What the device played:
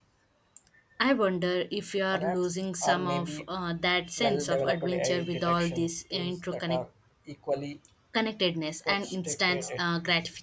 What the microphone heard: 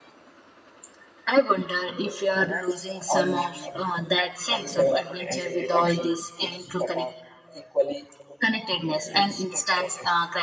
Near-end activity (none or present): none